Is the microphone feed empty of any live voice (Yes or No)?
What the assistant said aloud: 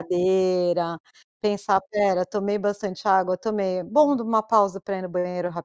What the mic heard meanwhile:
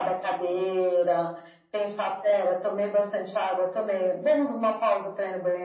Yes